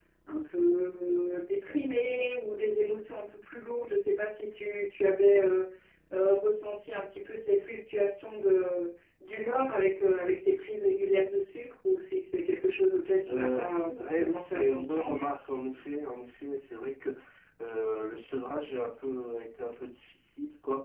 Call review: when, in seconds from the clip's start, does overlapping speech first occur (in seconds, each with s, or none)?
13.3 s